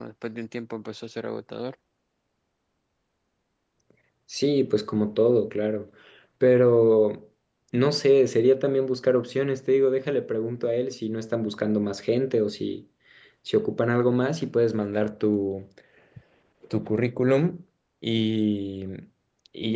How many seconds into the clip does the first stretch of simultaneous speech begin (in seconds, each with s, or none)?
none